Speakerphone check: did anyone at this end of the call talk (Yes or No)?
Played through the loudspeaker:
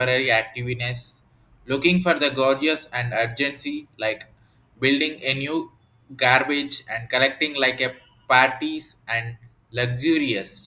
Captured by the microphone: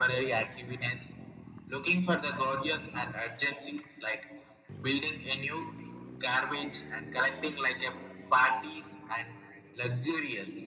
No